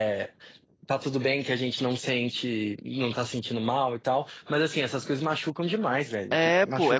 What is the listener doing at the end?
taking over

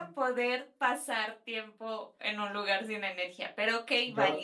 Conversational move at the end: taking over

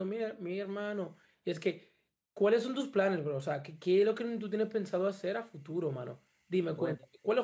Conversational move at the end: listening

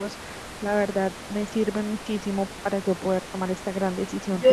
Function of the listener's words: taking over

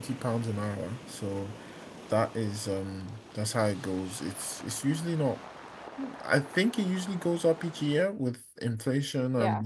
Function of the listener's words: listening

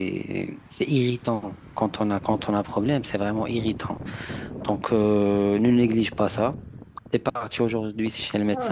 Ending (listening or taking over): taking over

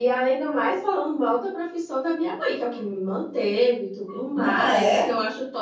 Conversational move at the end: listening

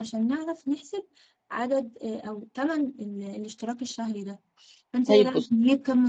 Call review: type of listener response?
listening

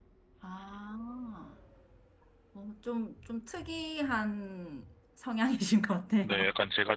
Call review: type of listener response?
taking over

